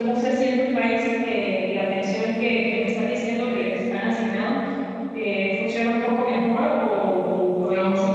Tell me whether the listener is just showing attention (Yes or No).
No